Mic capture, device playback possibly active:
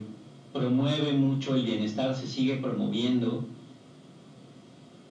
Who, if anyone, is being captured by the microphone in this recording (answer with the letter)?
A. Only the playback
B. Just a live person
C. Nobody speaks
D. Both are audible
A